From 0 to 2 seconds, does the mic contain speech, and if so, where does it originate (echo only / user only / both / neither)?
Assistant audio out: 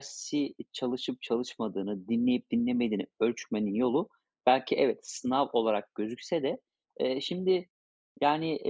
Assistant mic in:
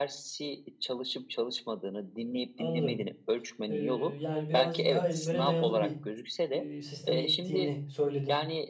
echo only